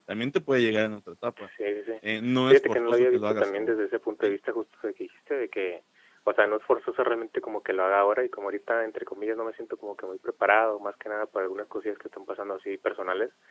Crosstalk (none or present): present